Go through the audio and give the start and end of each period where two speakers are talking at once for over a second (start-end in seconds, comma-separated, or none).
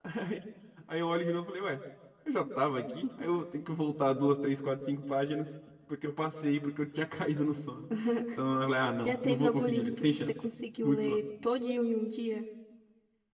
9.1-10.3